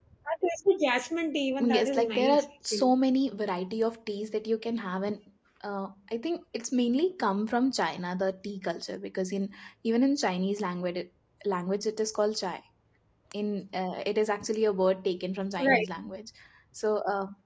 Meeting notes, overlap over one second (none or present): present